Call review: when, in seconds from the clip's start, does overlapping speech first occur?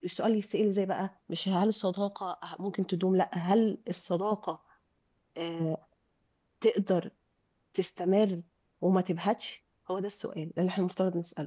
none

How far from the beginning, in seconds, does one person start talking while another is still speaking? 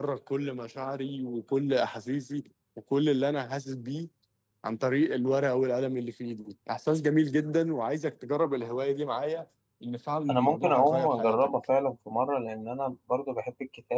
10 s

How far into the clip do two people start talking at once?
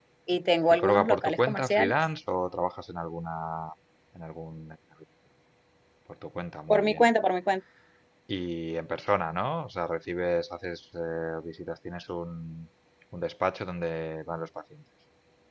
1 s

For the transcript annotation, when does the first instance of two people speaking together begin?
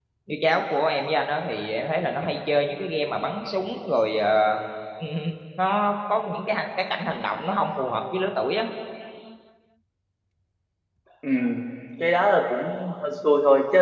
none

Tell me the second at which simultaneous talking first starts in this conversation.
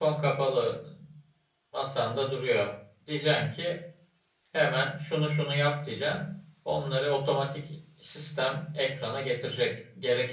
none

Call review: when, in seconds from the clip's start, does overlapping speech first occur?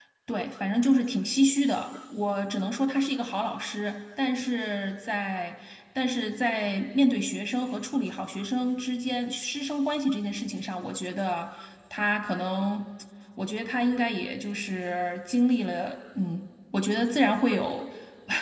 none

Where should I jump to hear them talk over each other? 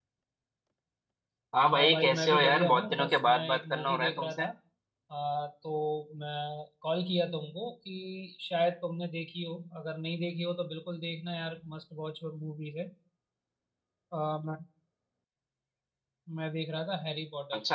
2 s

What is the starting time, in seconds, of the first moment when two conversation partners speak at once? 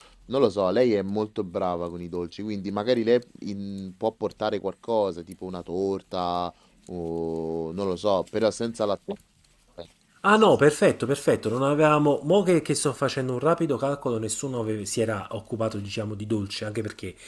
none

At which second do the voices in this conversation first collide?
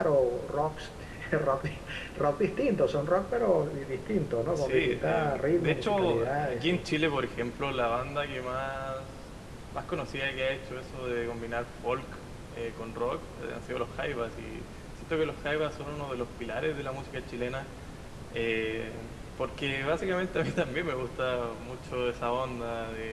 4 s

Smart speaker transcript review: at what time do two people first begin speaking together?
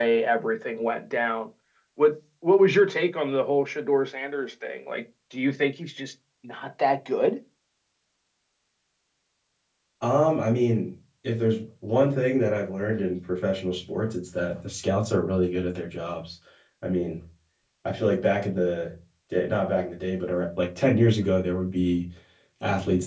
none

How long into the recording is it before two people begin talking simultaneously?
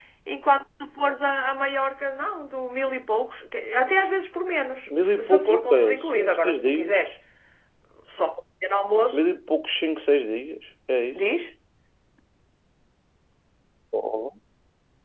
5 s

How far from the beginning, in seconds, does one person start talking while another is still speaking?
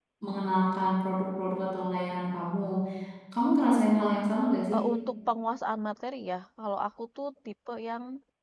none

